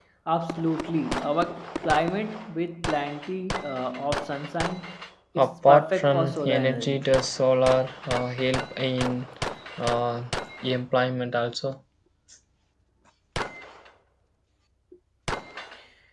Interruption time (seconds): 5.4 s

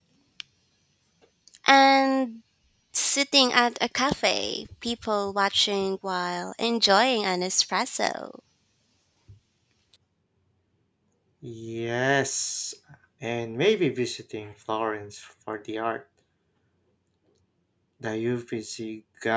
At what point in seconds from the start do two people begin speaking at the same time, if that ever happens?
none

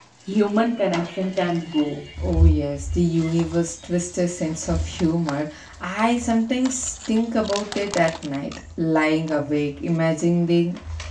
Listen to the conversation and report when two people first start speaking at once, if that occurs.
none

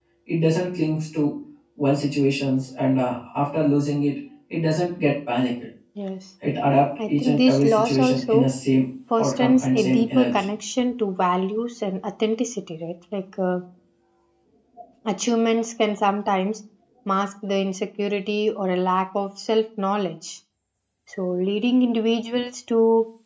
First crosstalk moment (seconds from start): 7.1 s

